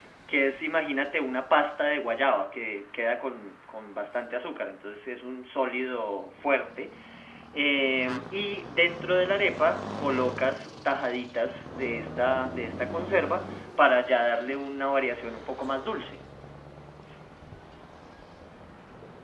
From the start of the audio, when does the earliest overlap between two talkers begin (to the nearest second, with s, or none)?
none